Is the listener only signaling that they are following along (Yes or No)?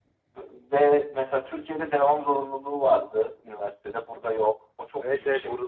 No